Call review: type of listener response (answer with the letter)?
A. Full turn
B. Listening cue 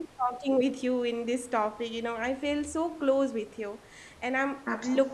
B